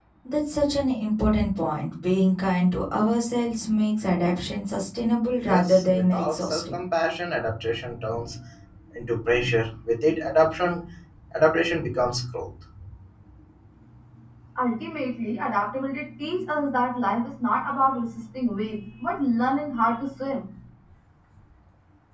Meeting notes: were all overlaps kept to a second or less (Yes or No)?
No